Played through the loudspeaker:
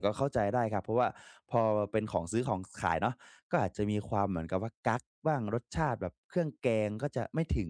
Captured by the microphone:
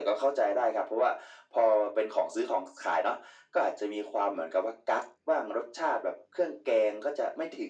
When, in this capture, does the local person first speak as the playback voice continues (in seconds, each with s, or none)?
none